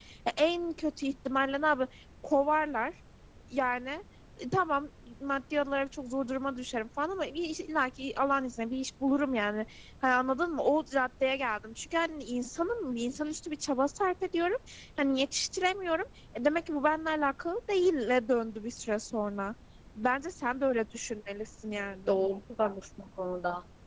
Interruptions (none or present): none